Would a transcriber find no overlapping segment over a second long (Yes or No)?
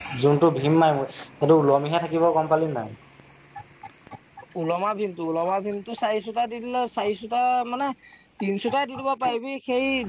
Yes